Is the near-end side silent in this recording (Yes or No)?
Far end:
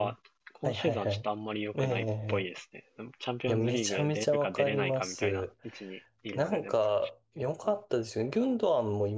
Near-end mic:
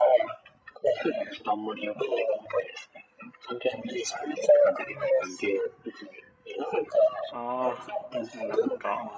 No